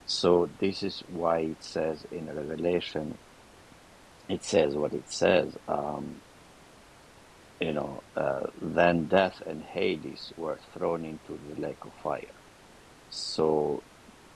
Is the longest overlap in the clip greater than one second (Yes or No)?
No